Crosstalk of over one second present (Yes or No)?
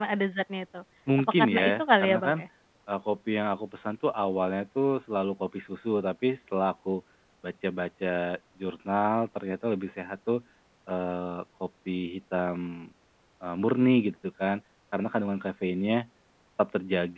Yes